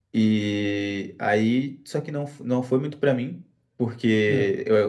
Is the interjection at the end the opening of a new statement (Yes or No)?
No